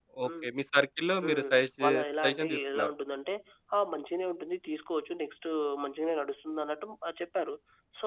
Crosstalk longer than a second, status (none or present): present